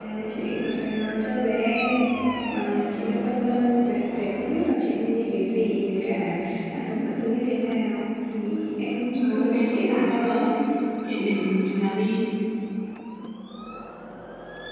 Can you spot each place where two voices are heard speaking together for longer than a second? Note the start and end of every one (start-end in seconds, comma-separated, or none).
9.1-10.5